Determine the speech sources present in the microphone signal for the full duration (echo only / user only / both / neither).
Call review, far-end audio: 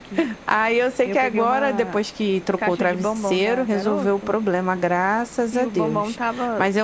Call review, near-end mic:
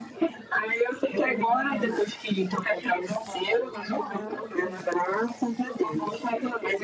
both